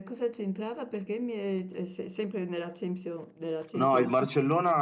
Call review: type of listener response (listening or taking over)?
taking over